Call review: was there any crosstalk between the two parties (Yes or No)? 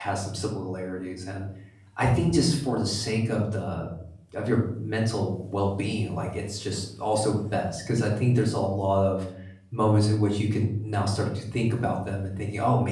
No